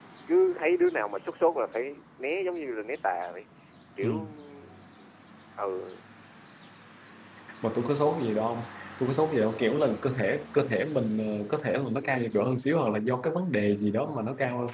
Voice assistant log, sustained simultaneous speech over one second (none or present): none